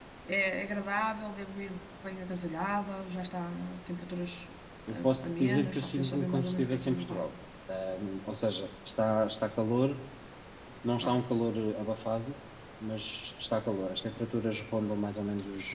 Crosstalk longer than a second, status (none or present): present